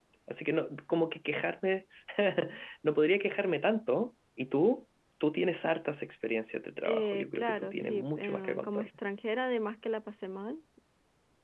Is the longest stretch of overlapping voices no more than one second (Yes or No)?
No